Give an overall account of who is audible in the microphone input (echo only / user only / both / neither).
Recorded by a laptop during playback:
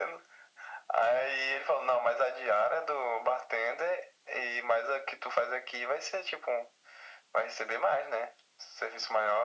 echo only